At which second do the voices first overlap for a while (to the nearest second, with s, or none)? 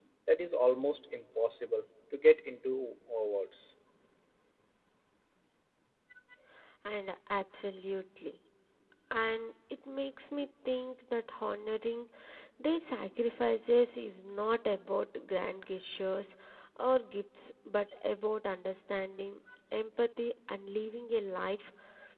none